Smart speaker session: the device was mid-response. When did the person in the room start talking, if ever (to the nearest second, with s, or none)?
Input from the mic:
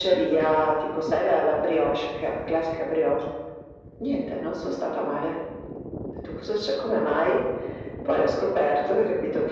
none